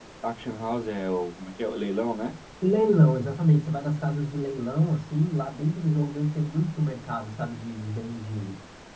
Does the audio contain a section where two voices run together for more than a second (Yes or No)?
No